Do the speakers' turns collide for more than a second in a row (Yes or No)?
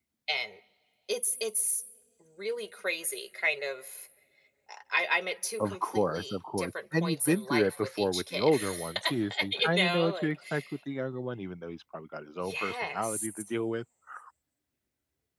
Yes